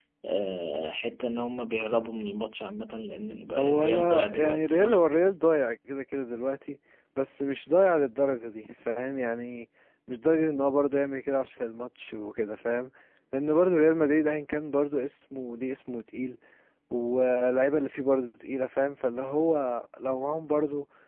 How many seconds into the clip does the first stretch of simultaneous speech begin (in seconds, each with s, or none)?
3.6 s